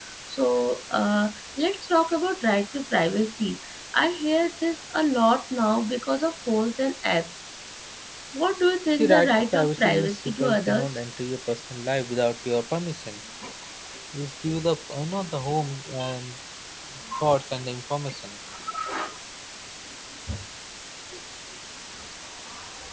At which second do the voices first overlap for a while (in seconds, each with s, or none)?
9.0 s